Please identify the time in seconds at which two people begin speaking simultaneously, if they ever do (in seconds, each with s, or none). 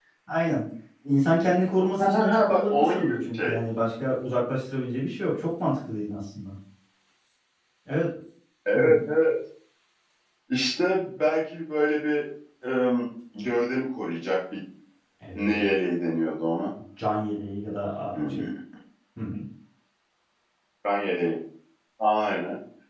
2.0 s